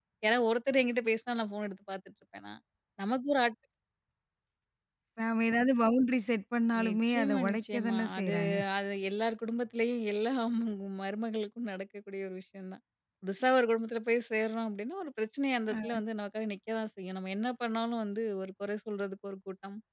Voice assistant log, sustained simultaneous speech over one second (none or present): present